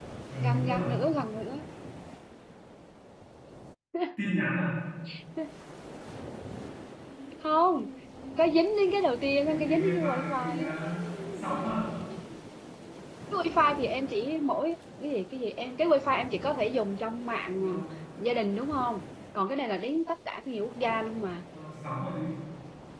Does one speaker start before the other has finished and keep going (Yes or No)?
Yes